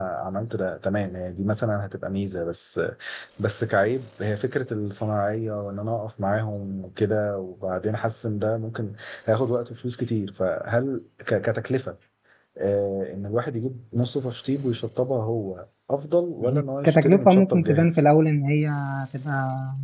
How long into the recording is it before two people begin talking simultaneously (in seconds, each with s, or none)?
16.4 s